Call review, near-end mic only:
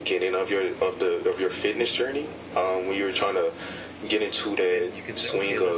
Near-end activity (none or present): present